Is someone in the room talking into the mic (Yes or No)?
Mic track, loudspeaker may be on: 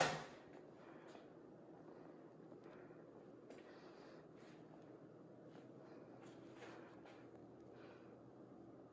No